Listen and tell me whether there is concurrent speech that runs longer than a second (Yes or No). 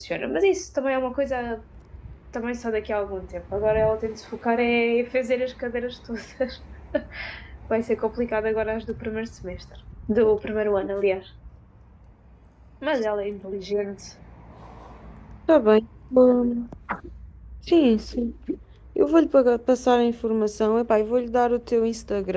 No